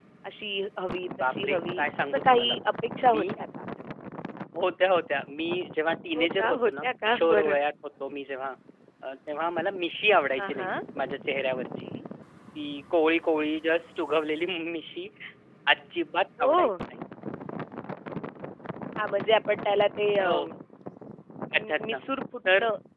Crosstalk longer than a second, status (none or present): present